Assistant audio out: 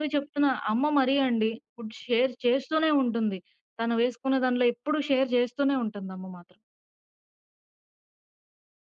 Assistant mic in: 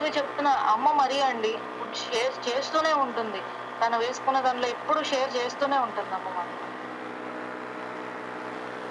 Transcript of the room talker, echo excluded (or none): none